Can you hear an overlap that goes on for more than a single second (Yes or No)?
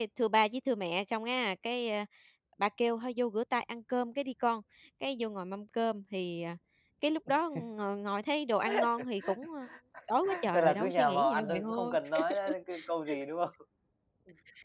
Yes